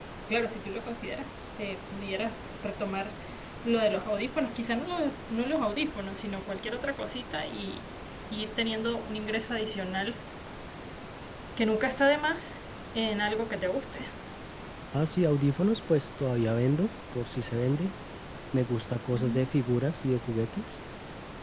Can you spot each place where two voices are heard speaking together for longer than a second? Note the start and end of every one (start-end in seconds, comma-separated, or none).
none